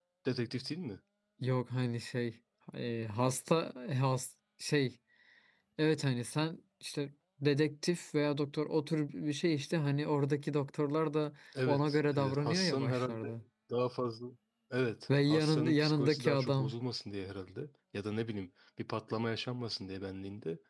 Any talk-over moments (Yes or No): Yes